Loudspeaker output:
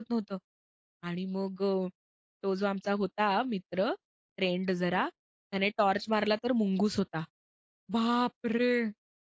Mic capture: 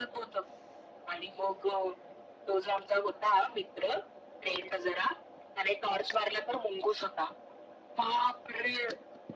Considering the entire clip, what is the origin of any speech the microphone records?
echo only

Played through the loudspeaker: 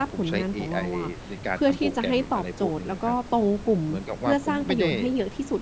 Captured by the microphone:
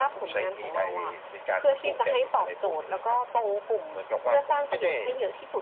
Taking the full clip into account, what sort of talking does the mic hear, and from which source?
echo only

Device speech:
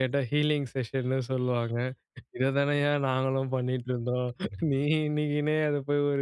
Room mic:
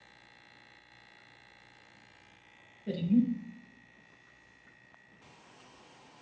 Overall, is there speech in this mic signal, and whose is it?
user only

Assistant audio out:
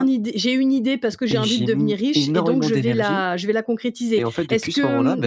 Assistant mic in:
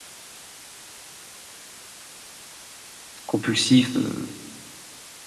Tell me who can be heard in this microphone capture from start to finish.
user only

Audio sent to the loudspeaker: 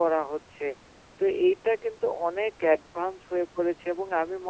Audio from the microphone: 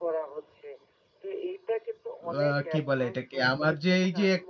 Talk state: both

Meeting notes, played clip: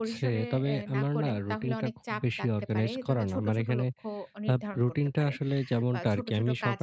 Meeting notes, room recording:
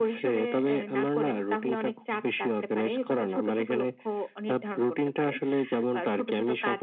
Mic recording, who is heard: echo only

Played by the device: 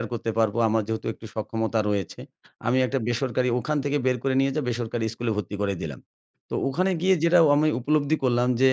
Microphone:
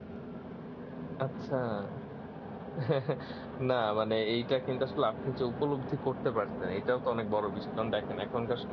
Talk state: user only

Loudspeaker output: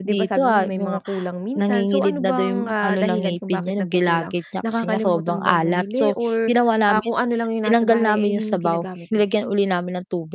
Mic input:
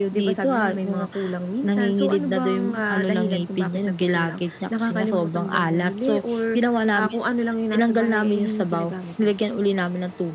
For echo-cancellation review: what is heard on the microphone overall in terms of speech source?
echo only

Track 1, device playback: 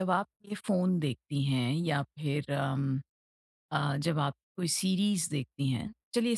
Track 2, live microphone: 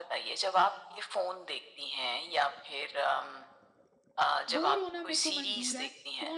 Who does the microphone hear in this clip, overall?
both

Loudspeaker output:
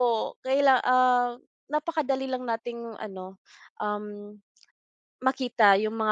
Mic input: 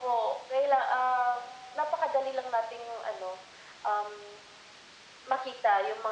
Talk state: echo only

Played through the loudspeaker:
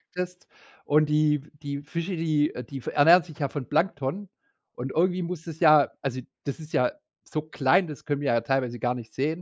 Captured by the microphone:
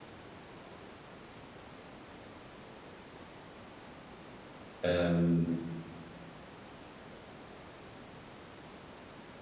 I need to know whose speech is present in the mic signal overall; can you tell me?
user only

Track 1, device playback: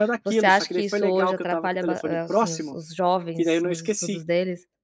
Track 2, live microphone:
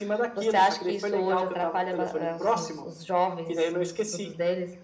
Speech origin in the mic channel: echo only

